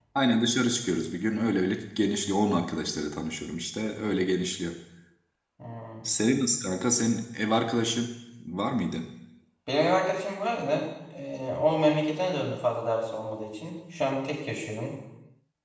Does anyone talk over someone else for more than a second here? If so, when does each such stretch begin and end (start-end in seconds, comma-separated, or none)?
none